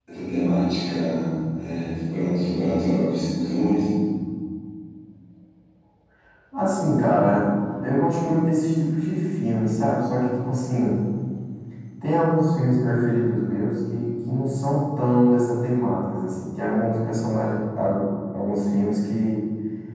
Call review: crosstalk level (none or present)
none